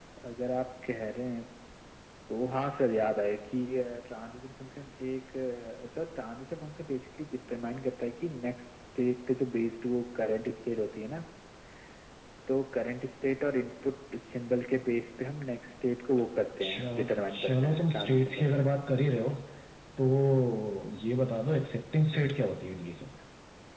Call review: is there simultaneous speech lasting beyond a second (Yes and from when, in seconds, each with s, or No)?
Yes, from 16.6 s